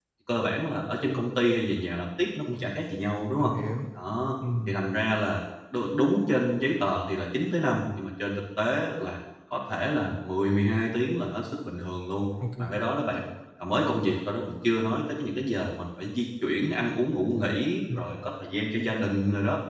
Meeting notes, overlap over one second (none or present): none